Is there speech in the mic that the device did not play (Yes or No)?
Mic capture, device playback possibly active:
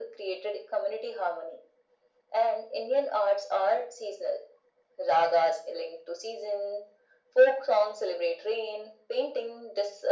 No